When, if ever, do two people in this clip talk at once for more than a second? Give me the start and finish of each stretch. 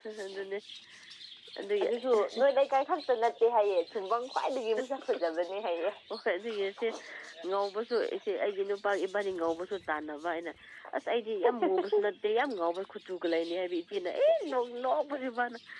none

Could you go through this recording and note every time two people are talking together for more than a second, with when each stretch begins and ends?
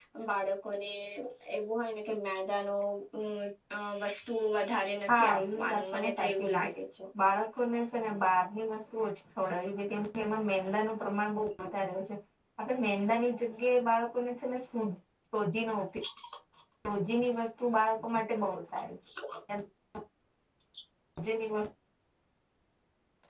5.1-6.7

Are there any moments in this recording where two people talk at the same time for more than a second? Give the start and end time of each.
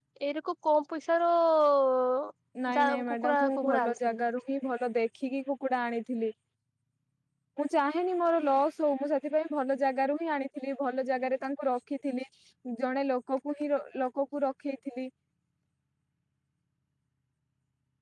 2.8-4.2

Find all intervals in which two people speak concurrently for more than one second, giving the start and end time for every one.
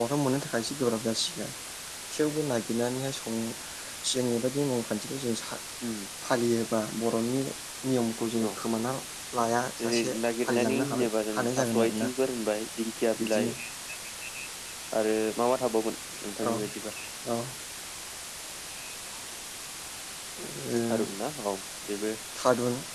9.8-12.1

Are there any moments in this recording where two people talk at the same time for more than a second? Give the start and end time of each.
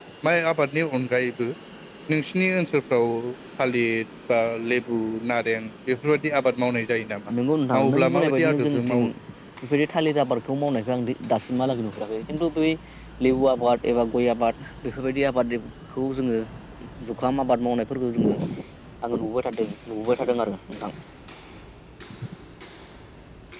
7.8-9.0

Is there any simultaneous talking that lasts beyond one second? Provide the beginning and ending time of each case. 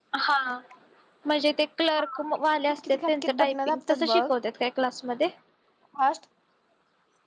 2.7-4.2

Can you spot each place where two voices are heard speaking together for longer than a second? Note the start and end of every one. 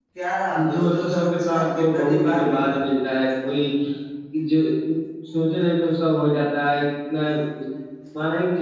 0.7-2.7

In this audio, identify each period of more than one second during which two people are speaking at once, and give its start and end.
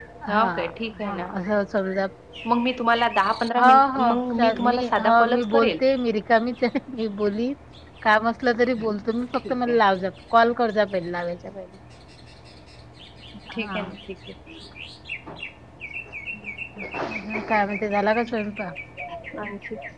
3.7-5.8

